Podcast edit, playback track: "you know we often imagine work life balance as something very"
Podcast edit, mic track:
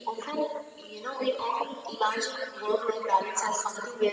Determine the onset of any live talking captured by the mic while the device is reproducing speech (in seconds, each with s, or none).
none